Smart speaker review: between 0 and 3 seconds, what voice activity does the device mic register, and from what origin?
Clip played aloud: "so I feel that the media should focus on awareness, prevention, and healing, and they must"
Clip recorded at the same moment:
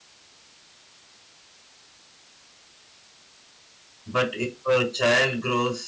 neither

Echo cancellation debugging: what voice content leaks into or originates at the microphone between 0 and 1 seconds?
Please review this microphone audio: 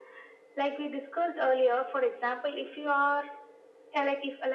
echo only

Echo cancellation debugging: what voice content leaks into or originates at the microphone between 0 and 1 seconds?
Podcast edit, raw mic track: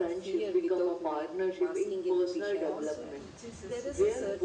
echo only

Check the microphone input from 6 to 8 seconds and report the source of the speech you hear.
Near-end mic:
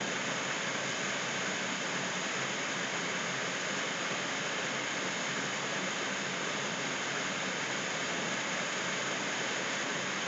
neither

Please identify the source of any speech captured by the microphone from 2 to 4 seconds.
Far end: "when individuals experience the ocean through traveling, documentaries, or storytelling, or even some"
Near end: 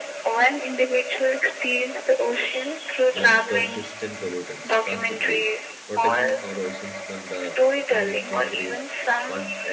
both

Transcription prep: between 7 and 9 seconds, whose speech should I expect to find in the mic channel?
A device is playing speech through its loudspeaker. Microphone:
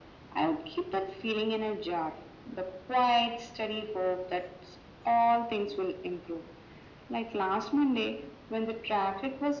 echo only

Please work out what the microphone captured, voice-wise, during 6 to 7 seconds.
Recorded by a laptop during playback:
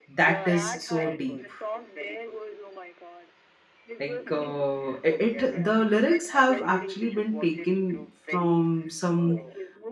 both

